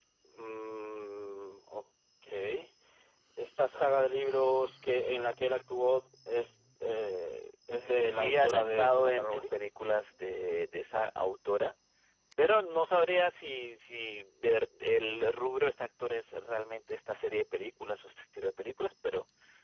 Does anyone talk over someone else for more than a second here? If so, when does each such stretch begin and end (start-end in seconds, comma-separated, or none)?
8.0-9.6